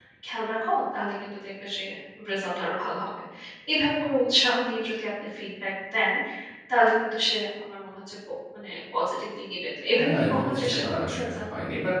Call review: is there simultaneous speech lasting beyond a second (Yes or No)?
Yes